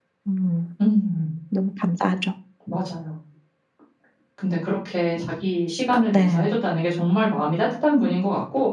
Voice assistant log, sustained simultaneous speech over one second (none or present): none